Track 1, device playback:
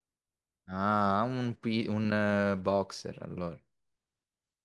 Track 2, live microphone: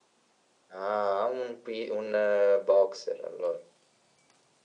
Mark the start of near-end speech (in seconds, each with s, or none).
none